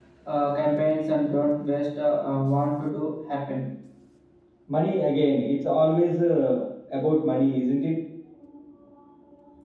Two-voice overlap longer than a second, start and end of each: none

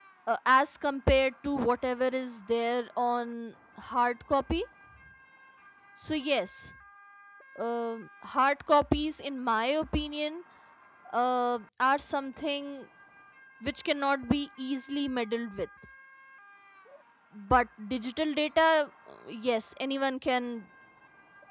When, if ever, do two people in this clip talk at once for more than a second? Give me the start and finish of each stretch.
none

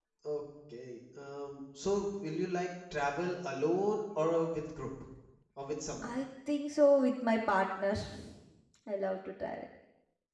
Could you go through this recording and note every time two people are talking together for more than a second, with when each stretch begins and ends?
none

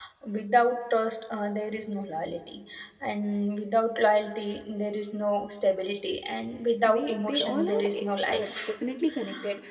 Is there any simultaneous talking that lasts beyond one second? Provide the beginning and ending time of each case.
6.9-8.5

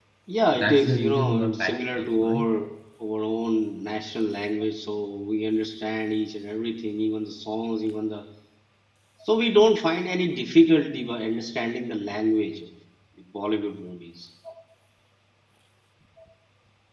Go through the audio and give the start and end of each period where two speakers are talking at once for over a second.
0.5-2.5

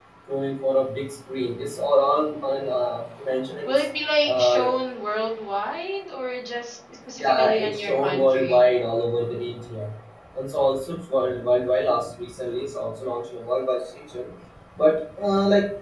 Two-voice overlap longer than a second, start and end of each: 7.2-8.7

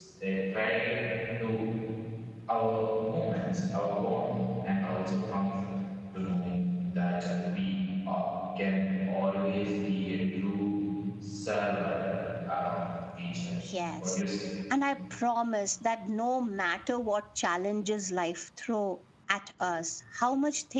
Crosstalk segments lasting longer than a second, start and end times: none

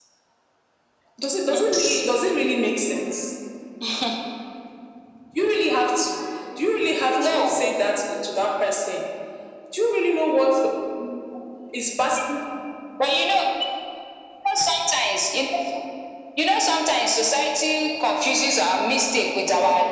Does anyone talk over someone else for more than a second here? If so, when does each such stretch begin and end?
none

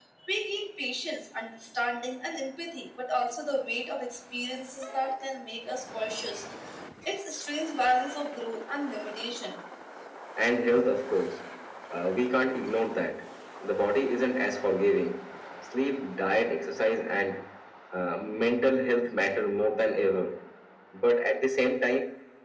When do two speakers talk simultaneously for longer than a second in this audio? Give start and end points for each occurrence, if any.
none

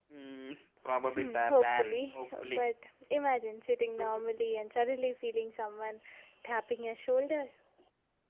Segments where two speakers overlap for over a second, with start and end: 1.1-2.6

